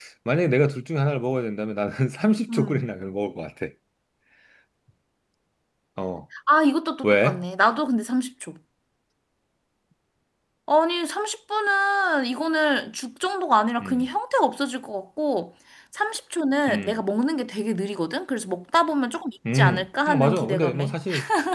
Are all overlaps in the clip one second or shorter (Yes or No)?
No